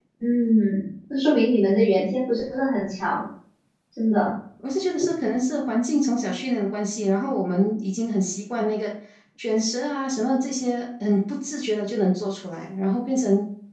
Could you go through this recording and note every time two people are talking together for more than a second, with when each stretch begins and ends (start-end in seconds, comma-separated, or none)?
none